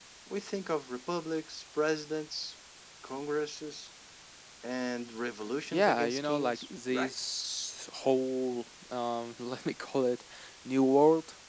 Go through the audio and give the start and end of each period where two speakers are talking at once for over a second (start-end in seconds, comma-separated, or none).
5.7-7.1